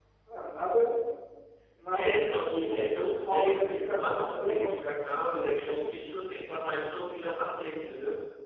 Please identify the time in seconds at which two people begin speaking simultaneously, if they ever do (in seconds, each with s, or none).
1.9 s